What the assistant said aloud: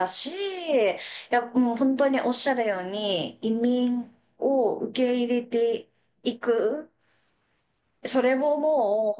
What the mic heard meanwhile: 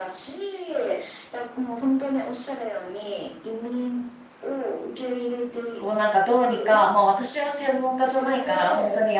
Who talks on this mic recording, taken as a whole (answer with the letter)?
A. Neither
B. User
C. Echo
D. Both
D